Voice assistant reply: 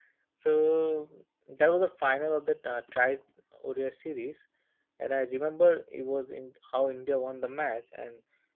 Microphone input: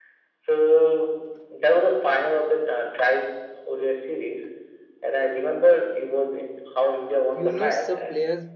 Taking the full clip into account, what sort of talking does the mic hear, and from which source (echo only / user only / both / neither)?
both